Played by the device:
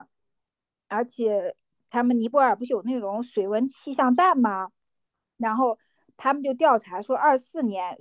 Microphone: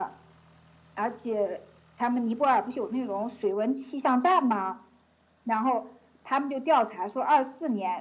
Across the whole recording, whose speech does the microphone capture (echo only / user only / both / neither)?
echo only